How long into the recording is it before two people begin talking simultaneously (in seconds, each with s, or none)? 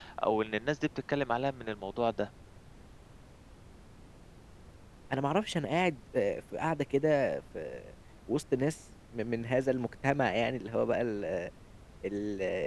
none